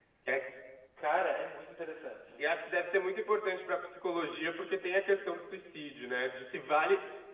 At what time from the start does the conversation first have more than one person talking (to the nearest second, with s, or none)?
none